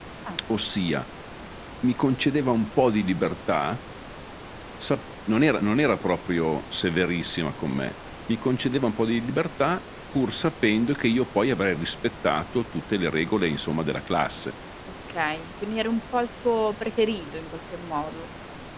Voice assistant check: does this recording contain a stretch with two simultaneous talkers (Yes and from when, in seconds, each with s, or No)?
No